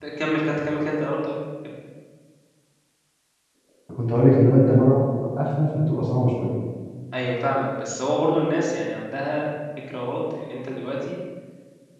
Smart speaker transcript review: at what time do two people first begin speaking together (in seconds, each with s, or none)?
none